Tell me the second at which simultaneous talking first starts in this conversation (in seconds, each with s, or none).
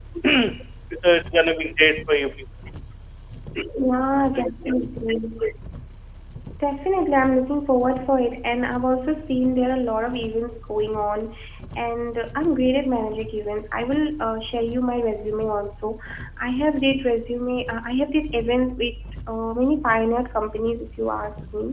none